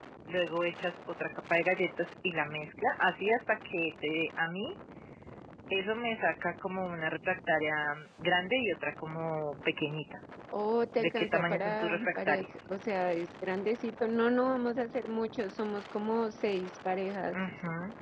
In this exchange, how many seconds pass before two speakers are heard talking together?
11.0 s

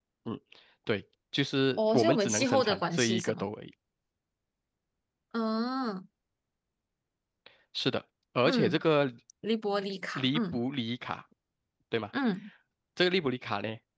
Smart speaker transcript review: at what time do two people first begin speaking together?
1.8 s

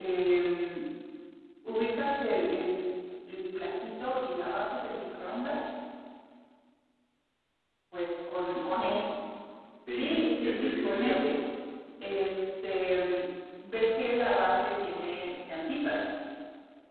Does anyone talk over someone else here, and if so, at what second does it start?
10.0 s

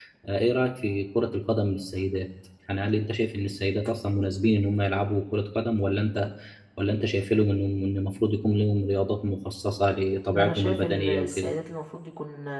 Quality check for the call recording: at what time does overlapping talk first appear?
10.3 s

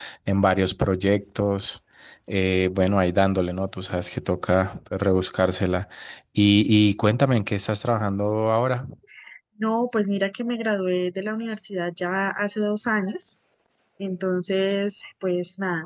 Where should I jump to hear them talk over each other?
none

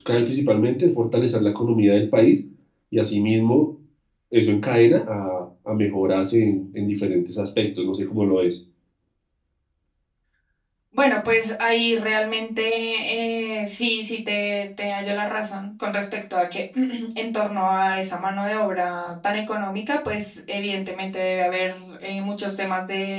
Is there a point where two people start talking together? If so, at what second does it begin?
none

